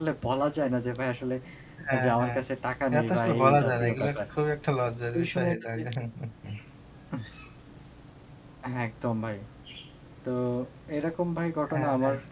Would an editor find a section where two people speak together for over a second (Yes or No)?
Yes